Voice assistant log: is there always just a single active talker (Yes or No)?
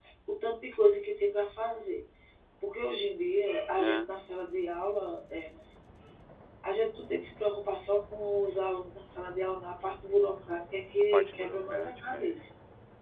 No